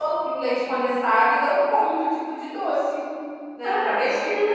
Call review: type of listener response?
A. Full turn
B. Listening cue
A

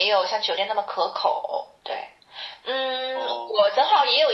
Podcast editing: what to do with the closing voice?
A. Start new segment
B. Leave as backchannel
B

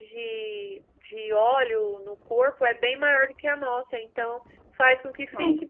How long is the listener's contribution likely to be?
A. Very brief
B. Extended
A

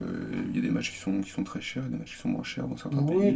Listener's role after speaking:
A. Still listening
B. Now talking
B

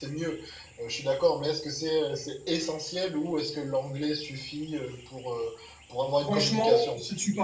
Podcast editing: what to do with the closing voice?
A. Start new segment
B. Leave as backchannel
A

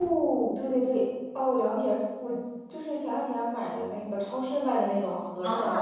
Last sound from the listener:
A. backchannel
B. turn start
B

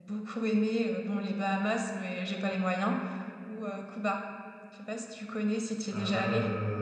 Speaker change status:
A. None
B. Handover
B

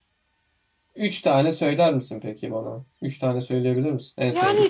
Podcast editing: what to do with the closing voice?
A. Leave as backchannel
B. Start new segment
B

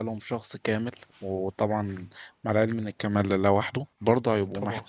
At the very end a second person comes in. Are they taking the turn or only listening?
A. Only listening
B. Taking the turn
A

